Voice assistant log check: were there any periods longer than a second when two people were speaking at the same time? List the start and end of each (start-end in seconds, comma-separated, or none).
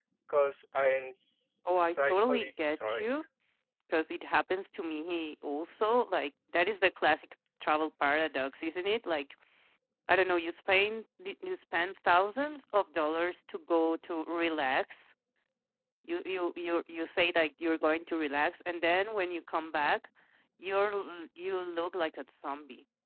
1.6-3.1